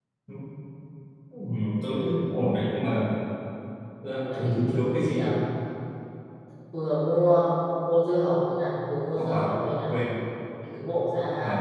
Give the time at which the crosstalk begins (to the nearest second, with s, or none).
4 s